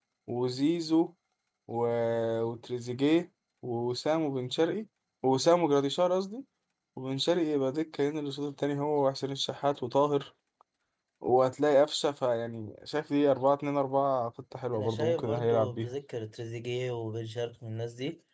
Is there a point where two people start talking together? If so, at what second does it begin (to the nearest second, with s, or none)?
15 s